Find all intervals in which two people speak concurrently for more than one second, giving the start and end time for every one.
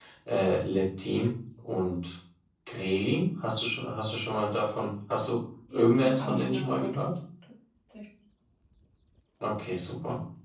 5.7-6.9

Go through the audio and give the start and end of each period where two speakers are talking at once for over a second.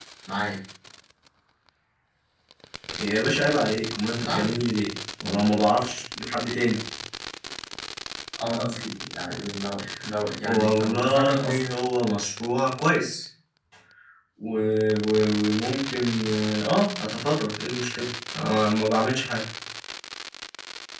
10.5-11.8

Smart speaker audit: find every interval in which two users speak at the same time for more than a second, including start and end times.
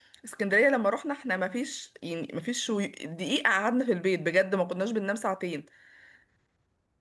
none

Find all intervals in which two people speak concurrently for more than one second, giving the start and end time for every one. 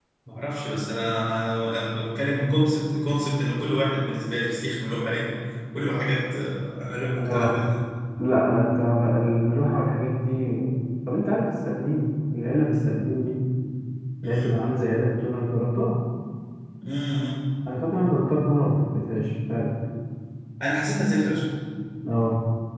none

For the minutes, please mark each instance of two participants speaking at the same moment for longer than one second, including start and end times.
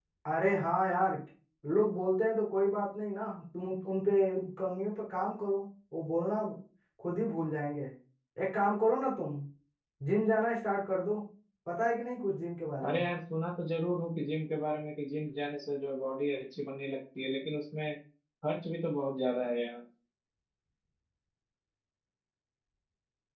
none

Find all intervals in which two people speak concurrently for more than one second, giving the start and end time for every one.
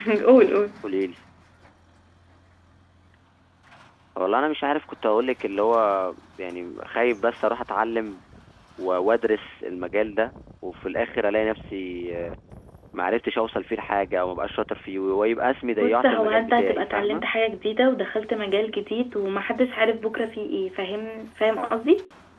15.8-17.2

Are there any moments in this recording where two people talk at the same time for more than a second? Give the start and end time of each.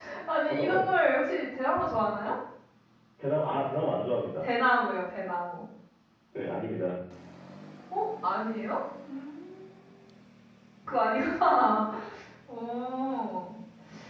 none

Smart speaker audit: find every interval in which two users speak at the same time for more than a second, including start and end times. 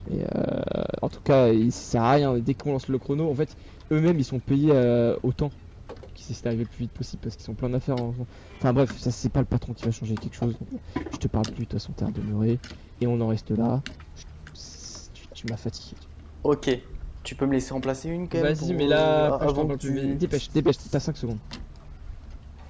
18.3-20.2

